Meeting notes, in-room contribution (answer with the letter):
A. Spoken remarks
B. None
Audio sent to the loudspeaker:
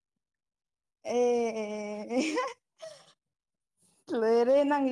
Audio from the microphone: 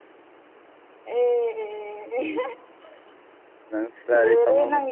A